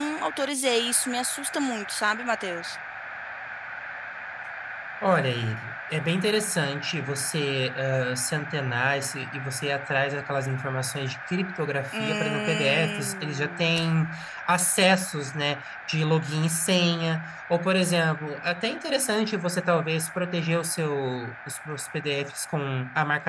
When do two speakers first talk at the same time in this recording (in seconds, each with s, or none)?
11.9 s